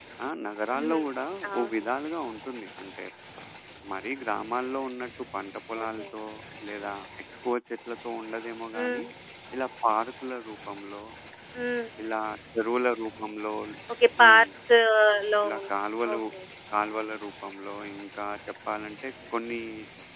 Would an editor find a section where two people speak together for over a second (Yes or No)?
No